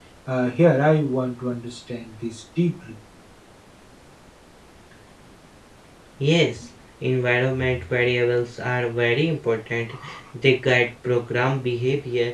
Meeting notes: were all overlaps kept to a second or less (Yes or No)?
Yes